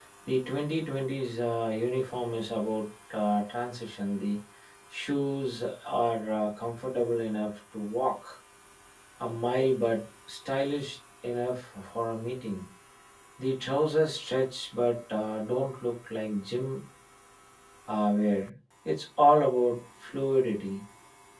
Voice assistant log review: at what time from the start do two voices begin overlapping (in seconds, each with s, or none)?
none